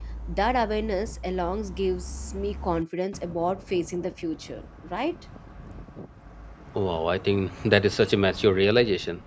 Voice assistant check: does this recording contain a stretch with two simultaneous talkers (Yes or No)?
No